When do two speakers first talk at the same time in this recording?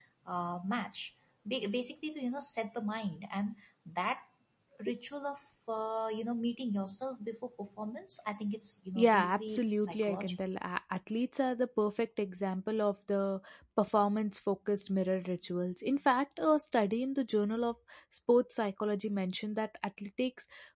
8.9 s

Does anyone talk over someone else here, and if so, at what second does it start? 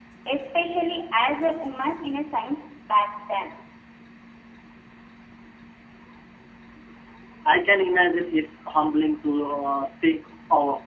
none

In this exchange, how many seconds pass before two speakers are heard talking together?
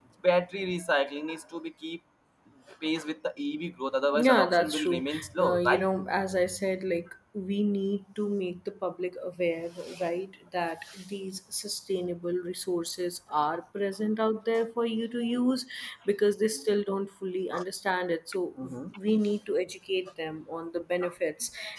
4.1 s

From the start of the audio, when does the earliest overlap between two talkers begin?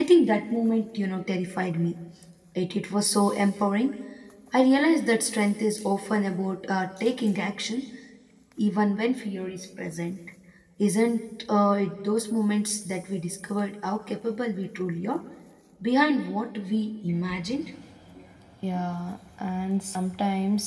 none

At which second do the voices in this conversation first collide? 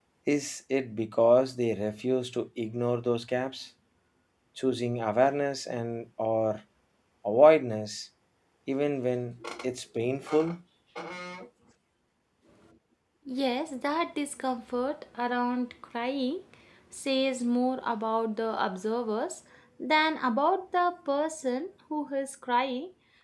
none

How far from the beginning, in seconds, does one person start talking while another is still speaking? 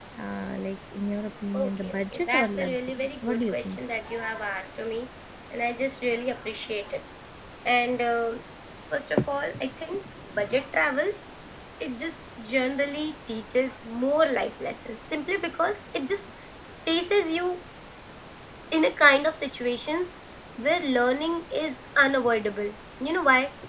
1.5 s

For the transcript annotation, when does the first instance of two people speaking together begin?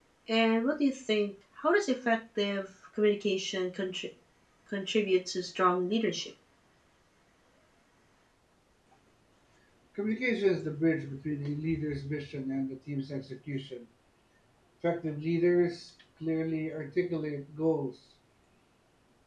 none

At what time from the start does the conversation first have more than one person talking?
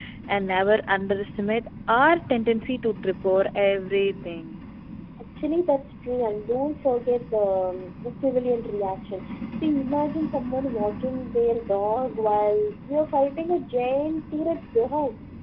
none

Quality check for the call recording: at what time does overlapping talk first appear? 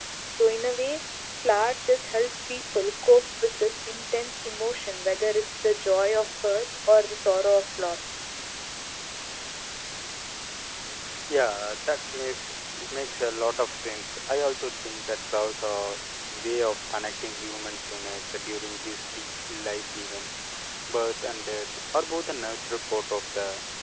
none

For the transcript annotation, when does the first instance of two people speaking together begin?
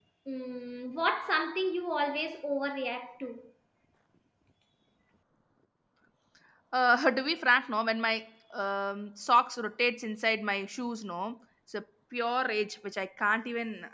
none

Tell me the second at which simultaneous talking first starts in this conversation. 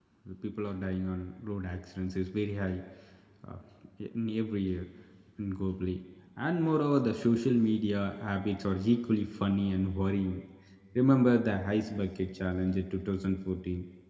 none

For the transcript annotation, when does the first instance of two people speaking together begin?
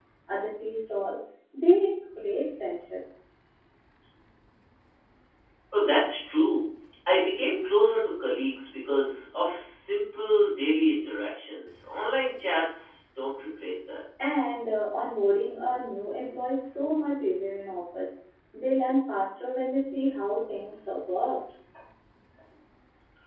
none

